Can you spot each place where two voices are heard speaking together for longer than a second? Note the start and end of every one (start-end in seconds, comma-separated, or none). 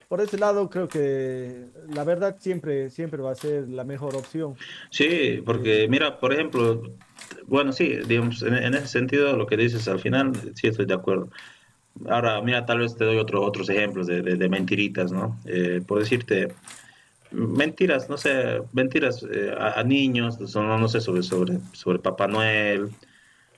none